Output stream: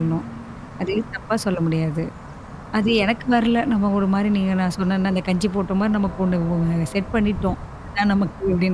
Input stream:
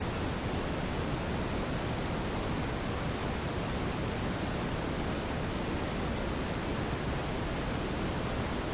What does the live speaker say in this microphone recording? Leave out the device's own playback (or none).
none